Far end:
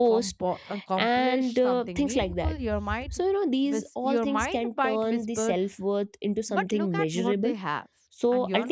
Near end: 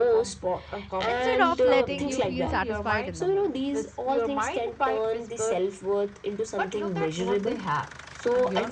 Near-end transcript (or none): instead of letting you feel satisfied in the moment.